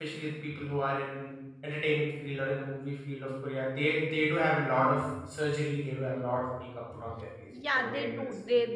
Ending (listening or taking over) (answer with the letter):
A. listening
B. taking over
B